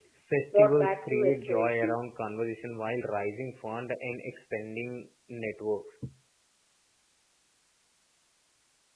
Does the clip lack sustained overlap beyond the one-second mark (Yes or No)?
No